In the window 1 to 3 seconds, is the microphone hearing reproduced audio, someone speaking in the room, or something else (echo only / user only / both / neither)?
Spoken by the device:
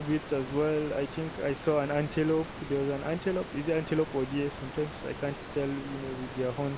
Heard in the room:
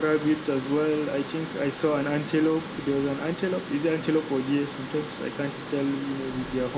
echo only